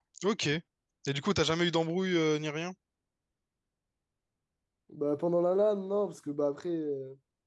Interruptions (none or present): none